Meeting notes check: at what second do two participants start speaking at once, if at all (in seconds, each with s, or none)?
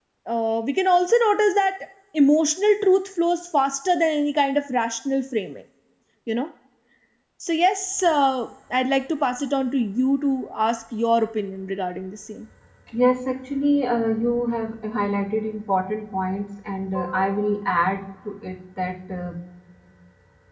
none